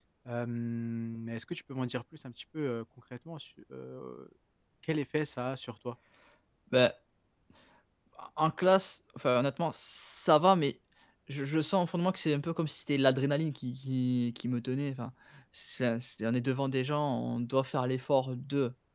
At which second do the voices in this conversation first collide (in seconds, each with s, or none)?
none